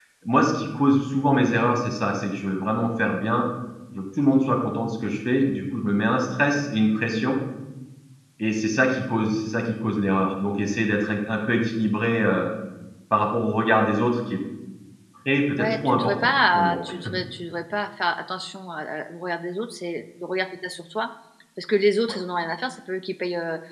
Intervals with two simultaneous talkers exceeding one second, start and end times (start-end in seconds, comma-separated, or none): 15.6-16.8